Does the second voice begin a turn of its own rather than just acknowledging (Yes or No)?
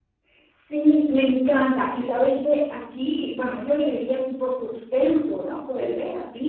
No